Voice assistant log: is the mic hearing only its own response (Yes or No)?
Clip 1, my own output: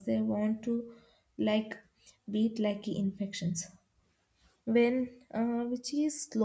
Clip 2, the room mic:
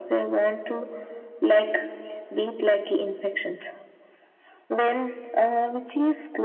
Yes